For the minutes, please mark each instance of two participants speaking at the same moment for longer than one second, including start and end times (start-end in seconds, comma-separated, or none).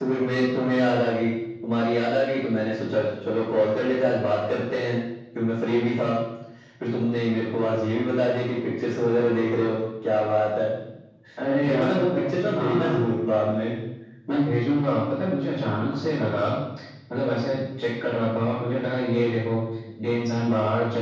11.6-13.1